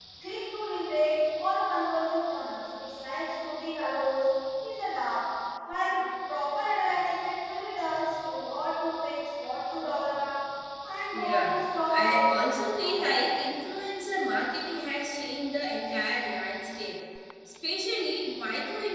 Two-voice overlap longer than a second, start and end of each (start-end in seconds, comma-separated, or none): 11.1-13.0